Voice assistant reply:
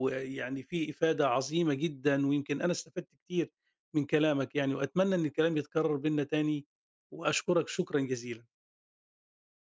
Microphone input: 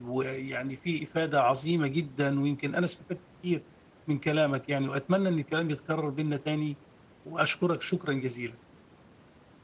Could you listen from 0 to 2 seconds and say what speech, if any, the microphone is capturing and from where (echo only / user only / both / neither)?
echo only